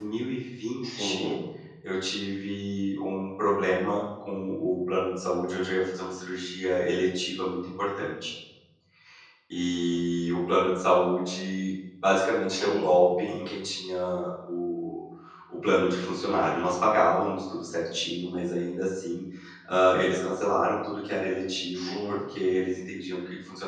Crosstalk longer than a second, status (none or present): none